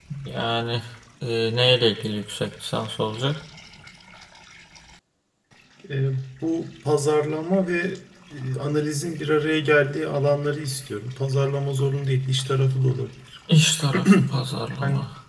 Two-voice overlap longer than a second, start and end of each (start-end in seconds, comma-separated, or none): none